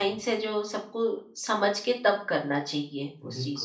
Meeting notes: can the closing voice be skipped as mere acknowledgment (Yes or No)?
No